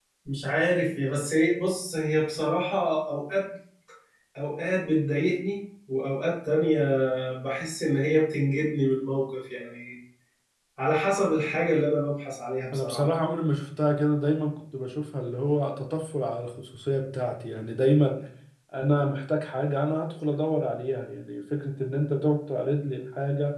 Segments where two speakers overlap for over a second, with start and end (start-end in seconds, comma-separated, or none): none